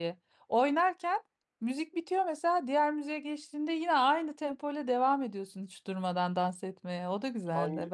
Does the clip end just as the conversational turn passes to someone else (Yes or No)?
Yes